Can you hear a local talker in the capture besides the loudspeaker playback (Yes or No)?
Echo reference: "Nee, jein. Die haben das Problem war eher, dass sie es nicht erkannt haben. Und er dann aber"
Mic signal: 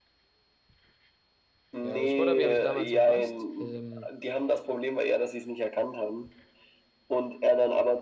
Yes